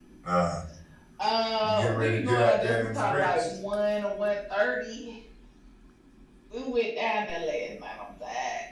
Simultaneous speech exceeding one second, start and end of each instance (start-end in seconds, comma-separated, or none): 1.6-3.6